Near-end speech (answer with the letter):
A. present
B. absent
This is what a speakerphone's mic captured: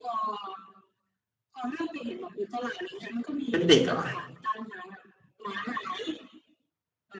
A